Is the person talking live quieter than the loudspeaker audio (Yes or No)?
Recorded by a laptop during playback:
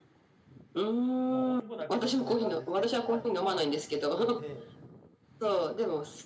Yes